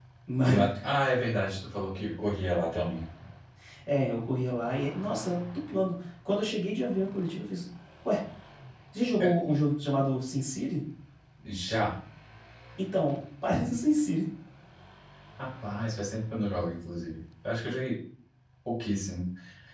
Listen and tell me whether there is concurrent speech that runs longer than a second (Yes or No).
No